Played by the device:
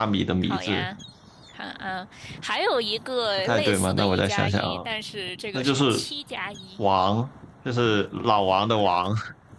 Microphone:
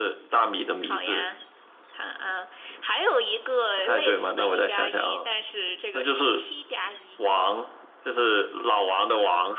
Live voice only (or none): none